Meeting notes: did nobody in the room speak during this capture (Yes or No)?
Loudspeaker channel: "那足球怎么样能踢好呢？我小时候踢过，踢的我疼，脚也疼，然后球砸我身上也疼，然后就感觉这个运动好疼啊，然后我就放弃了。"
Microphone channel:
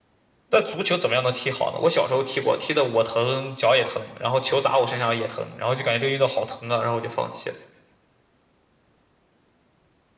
Yes